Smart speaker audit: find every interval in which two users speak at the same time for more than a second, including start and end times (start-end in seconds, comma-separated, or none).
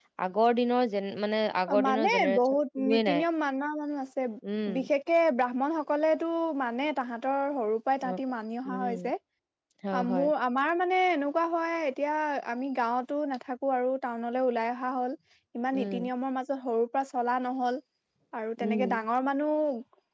1.7-3.2